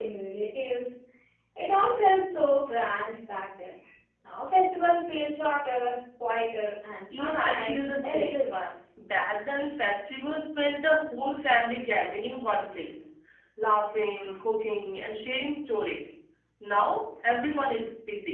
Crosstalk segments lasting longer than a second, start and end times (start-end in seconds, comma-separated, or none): 7.2-8.4